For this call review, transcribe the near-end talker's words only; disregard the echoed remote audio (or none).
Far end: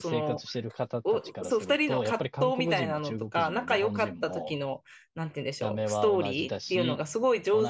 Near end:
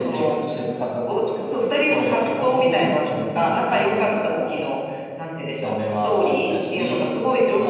none